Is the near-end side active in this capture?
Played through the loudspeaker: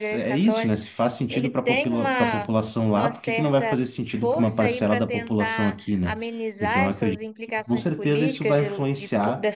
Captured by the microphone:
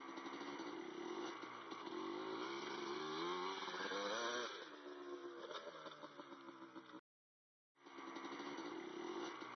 No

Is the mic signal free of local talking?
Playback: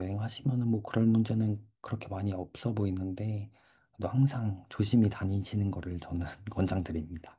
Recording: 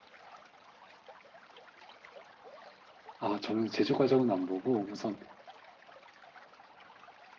No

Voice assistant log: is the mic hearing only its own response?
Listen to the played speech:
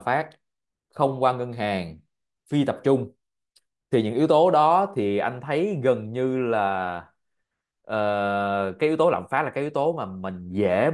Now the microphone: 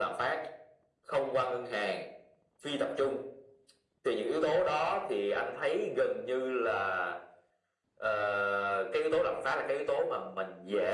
Yes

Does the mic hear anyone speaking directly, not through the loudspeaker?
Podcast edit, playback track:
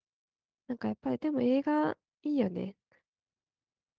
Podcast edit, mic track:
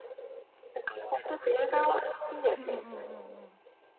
Yes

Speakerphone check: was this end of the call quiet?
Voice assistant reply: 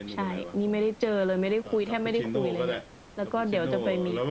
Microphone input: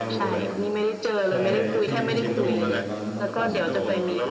No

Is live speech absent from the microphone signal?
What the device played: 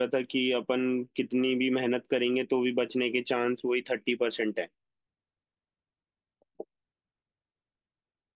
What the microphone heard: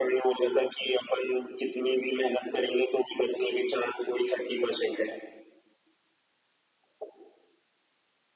Yes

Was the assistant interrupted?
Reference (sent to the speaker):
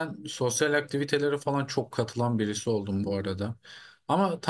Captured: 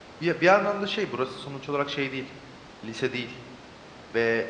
Yes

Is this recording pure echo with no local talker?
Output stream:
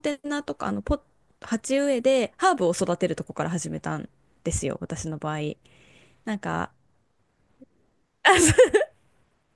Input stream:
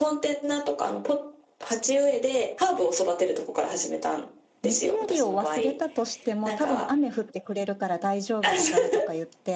No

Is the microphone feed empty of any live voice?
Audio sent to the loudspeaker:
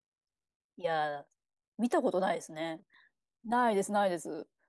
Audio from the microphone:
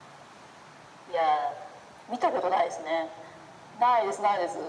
Yes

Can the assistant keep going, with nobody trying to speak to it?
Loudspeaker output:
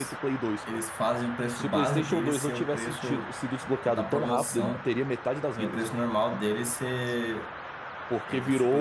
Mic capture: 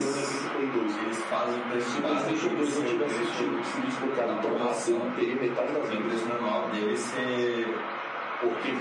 Yes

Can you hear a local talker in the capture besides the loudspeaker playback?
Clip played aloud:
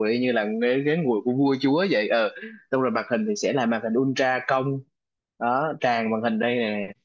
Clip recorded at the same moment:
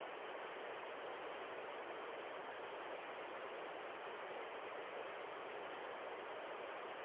No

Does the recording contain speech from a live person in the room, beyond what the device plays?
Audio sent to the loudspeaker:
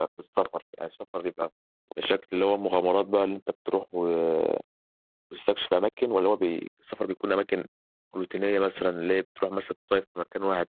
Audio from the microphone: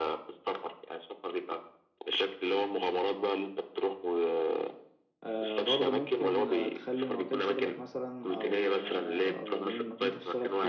Yes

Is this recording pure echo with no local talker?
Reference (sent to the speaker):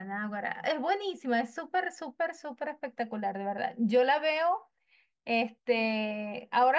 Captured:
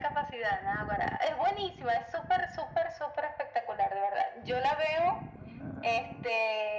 Yes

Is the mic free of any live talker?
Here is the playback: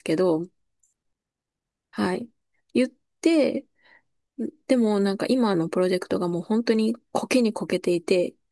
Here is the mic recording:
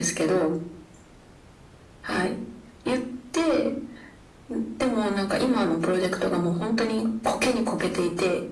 Yes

